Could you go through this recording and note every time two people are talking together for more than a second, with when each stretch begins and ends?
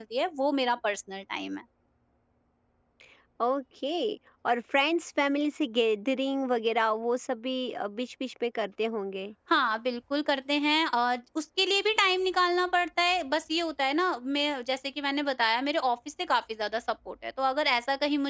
none

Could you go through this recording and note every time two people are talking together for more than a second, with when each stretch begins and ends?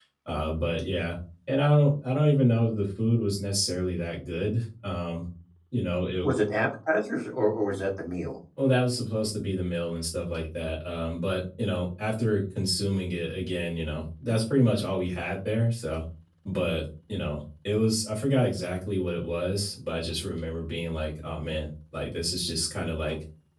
none

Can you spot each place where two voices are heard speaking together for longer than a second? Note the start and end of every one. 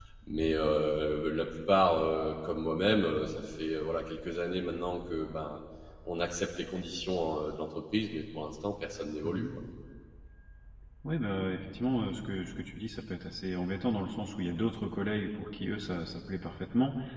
none

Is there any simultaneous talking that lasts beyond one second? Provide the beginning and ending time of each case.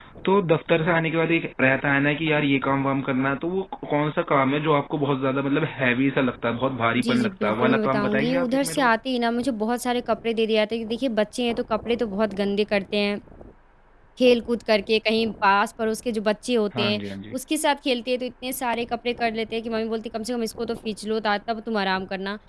7.0-8.9

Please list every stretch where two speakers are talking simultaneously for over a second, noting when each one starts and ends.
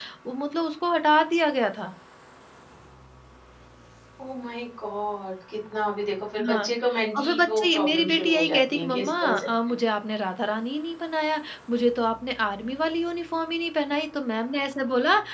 7.2-9.5

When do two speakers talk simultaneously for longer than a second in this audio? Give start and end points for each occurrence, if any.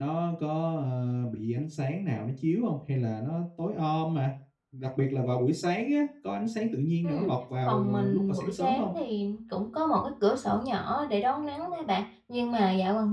7.7-8.9

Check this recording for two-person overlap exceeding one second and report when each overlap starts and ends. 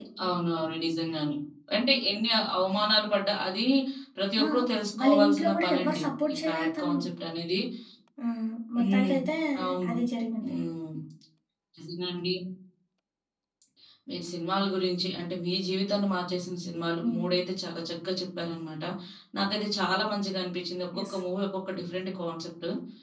5.0-7.0

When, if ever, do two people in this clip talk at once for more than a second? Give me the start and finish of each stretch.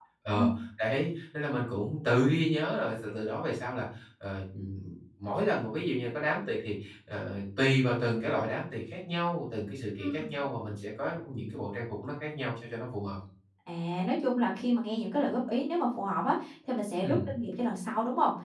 none

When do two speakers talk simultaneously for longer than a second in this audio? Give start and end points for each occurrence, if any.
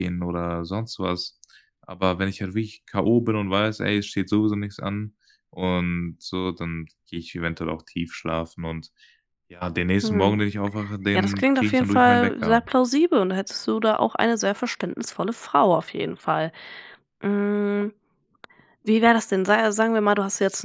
11.1-12.6

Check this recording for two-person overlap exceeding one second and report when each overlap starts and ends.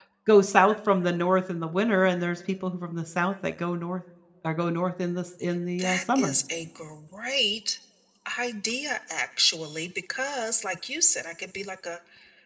none

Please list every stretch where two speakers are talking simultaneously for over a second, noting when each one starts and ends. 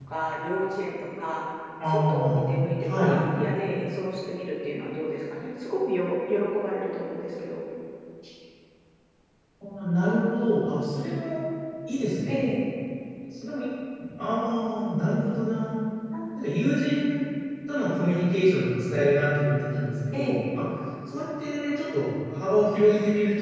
1.9-3.2

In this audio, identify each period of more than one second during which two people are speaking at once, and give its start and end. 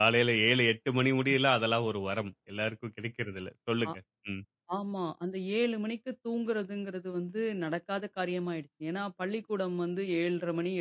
none

